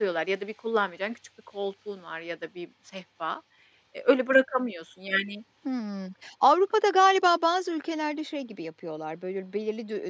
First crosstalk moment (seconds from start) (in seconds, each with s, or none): none